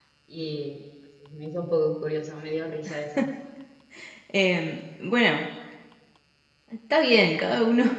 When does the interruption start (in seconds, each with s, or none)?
none